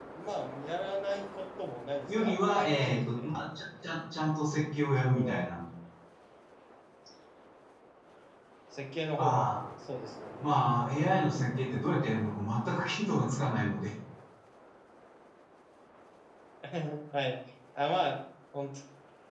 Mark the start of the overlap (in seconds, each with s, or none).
2.1 s